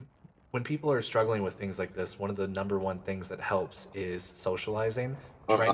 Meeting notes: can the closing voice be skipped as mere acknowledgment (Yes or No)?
Yes